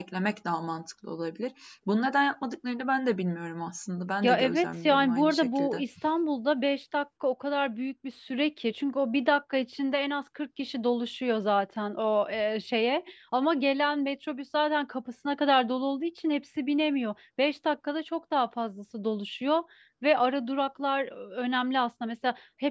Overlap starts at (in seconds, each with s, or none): 4.2 s